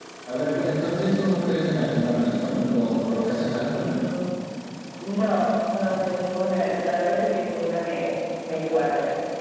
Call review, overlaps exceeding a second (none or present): none